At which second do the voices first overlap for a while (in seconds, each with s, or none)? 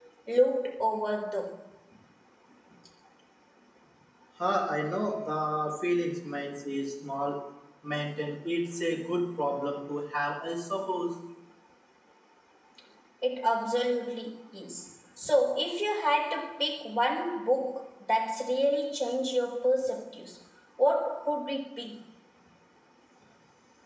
none